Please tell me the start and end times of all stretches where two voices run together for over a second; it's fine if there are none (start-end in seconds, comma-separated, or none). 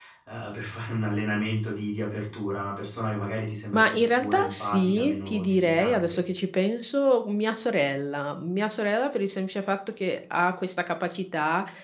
3.7-6.2